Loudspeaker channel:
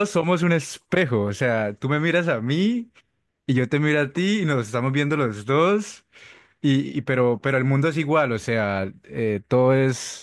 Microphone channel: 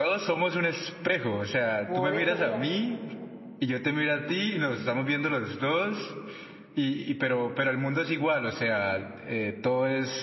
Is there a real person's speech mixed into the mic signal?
Yes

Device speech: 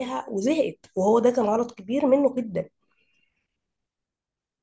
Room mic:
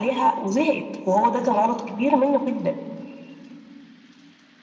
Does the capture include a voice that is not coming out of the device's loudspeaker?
No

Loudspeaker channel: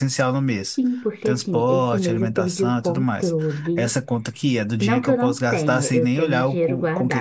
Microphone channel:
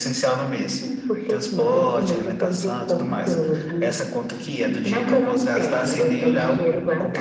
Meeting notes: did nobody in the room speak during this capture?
Yes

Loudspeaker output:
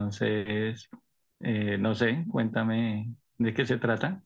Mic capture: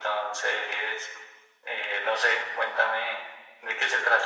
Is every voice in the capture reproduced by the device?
Yes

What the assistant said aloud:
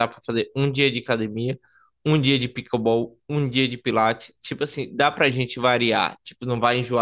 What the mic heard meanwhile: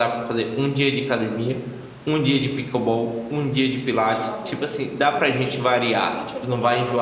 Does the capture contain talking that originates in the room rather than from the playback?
Yes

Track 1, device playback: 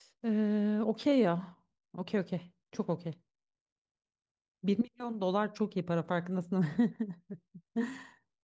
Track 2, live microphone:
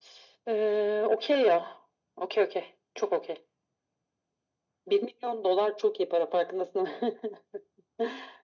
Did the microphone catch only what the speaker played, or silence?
Yes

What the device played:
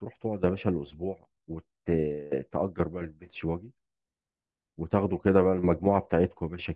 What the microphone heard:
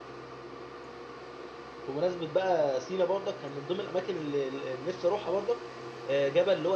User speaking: Yes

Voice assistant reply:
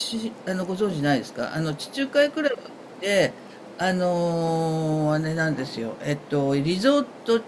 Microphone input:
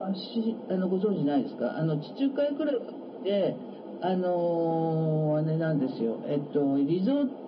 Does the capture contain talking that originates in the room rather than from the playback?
No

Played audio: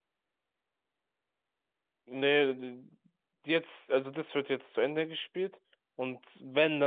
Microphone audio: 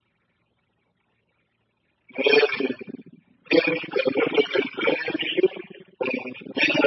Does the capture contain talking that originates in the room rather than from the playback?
No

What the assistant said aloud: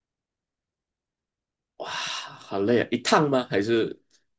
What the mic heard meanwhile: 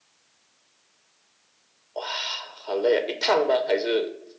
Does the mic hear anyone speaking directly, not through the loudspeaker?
No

